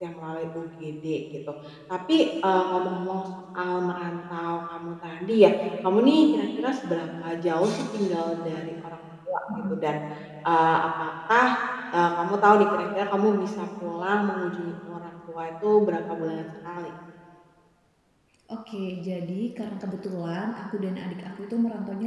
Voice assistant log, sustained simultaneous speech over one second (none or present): none